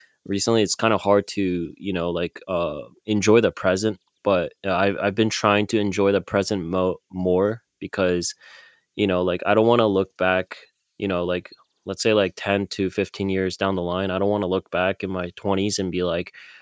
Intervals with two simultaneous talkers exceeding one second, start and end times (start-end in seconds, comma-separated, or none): none